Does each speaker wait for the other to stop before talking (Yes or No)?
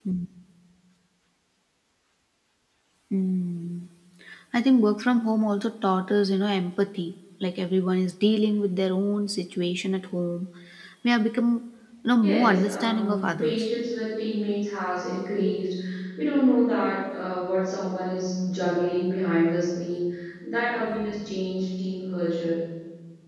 No